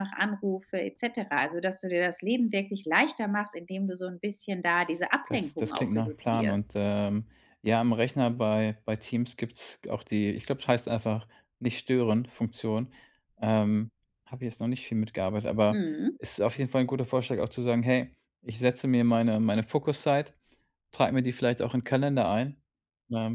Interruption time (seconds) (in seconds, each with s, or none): 5.3 s